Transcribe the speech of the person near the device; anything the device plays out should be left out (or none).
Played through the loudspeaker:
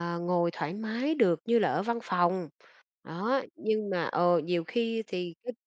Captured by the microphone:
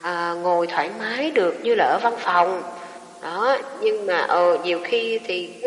none